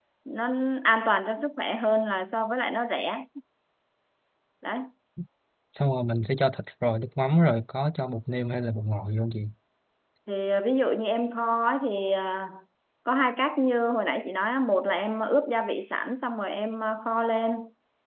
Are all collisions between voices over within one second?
Yes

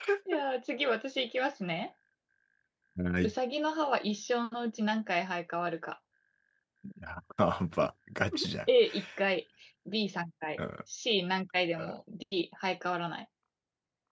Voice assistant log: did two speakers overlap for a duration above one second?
No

